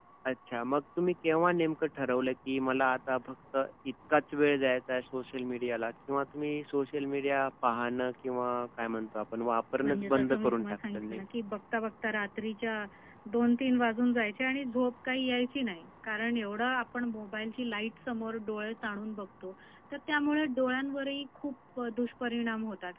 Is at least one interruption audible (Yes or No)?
Yes